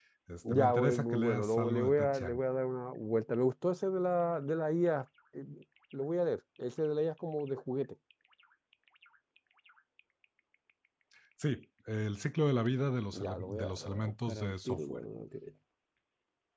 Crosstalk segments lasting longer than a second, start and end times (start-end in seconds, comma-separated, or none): 0.5-2.4, 13.1-15.0